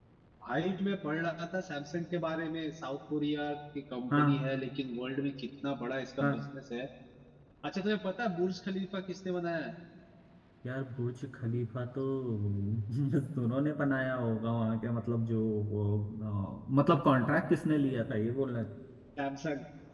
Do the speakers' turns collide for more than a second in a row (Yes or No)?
No